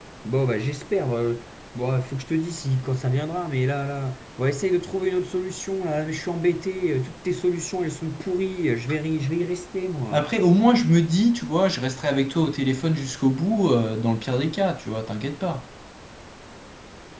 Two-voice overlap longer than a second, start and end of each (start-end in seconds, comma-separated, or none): none